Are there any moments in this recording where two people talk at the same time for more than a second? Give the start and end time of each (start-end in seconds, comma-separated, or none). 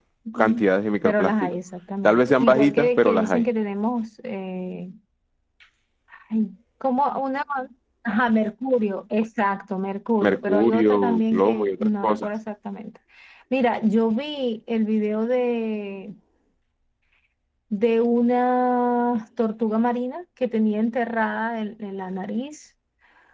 2.0-3.4, 10.2-12.3